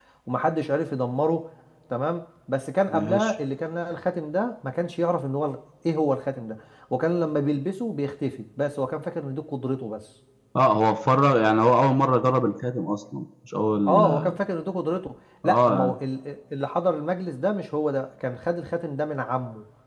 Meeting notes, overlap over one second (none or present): none